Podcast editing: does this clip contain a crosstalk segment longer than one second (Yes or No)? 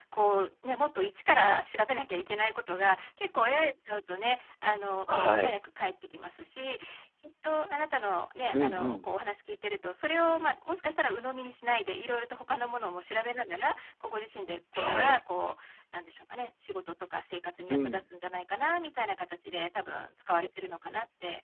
No